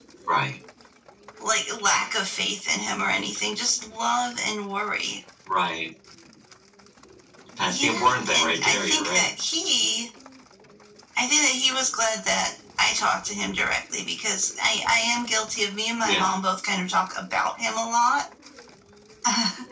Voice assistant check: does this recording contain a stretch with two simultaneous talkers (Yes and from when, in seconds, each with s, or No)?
Yes, from 7.7 s